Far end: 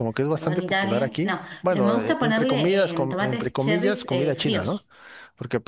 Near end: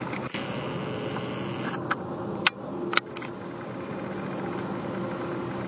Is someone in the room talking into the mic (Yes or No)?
No